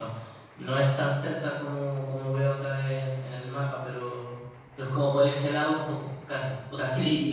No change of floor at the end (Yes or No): No